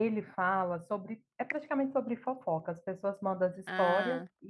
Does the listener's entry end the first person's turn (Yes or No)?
No